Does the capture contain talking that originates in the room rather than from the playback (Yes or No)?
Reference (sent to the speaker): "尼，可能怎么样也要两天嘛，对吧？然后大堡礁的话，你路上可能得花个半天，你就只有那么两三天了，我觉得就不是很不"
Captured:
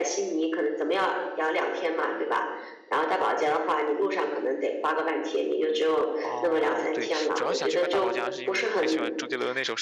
Yes